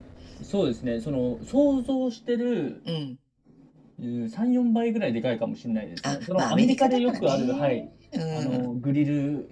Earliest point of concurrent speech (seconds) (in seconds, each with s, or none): 6.1 s